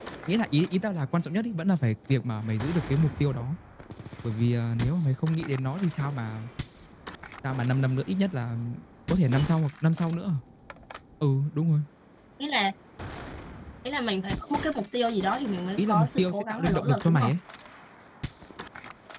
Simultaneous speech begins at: 15.8 s

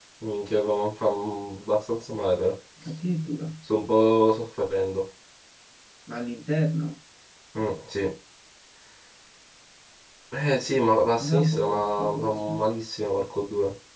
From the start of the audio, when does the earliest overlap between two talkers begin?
11.2 s

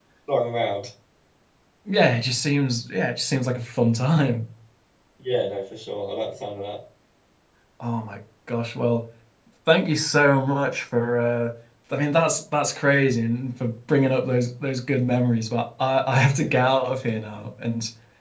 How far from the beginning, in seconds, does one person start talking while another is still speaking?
none

